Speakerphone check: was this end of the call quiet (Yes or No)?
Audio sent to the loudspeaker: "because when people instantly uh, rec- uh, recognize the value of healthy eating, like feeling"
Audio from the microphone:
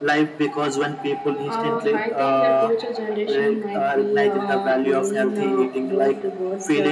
No